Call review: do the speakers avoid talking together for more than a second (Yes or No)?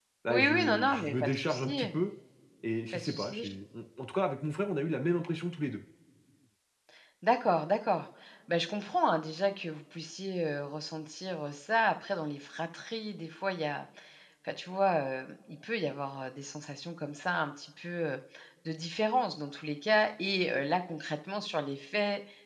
No